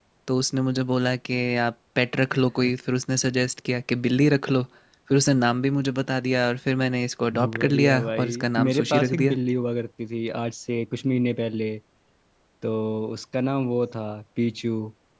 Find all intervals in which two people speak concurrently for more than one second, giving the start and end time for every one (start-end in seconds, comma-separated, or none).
7.3-9.3